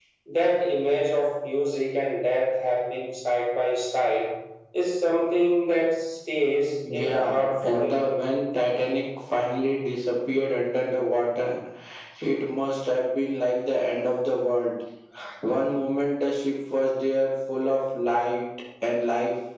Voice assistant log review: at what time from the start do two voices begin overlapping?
6.8 s

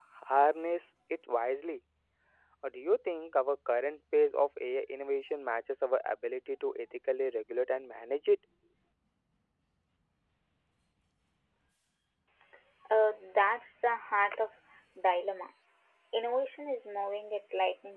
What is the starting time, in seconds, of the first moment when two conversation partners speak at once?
none

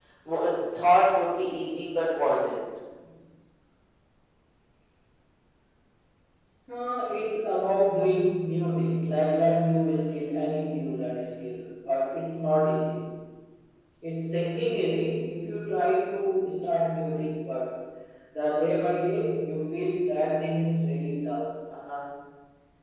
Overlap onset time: none

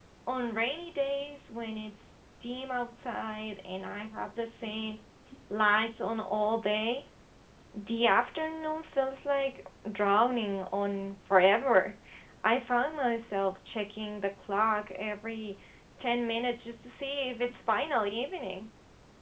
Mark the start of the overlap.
none

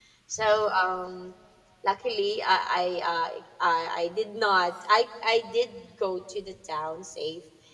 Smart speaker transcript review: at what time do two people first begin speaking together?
none

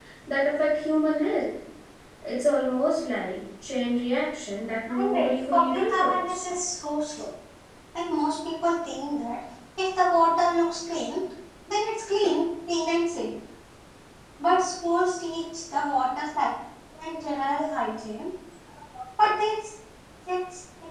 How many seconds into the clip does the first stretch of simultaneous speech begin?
4.9 s

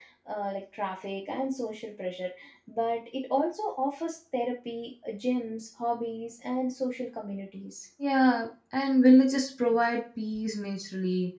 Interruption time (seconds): none

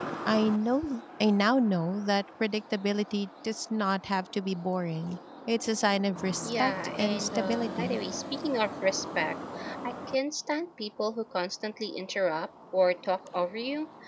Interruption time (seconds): 6.4 s

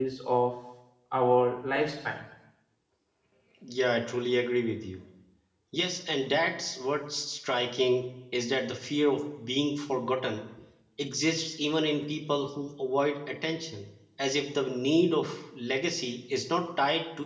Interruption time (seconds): none

